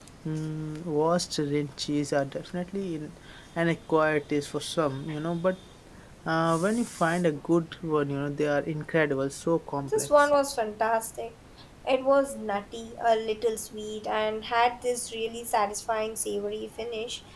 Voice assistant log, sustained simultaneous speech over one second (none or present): none